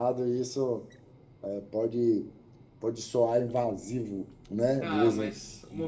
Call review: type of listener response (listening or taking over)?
taking over